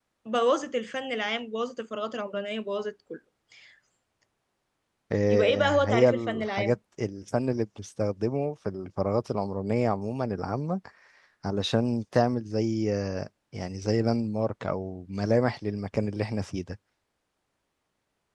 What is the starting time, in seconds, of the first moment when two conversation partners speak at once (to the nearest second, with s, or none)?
5 s